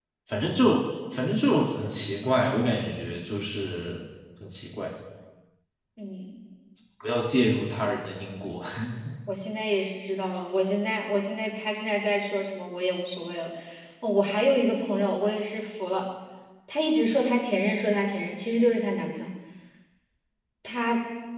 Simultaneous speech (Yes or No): No